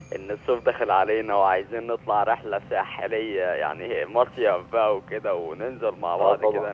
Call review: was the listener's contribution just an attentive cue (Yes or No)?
Yes